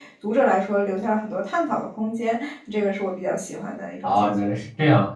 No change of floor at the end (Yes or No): No